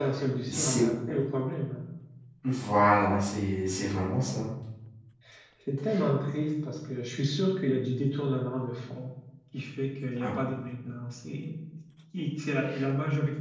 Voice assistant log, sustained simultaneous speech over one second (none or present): none